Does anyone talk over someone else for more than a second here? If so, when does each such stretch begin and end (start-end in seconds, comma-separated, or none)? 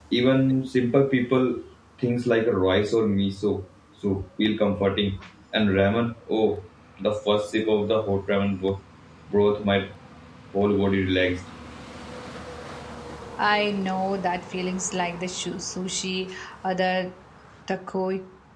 none